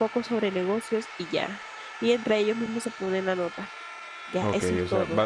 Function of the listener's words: taking over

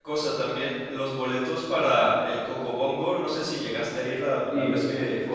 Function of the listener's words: taking over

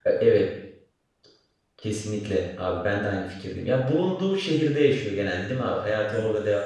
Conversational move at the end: taking over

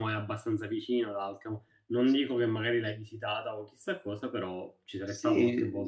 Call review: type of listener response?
taking over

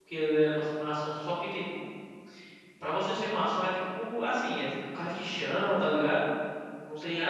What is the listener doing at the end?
taking over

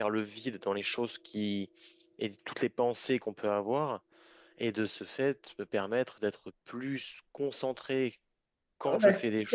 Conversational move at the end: taking over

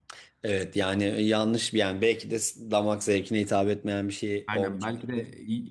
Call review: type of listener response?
taking over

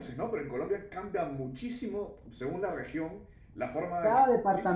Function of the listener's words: taking over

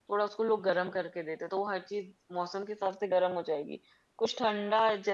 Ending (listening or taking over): listening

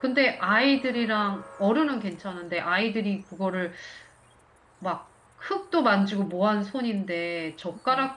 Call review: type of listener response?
listening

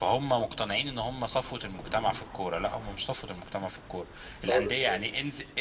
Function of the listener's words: listening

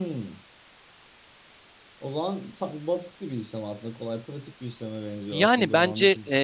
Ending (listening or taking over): taking over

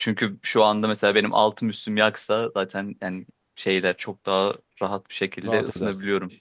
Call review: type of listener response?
taking over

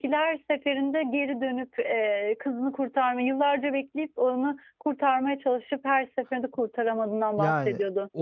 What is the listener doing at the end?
taking over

